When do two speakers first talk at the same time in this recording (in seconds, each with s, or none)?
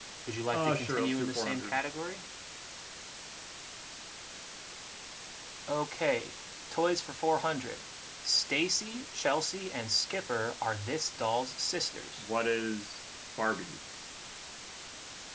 0.5 s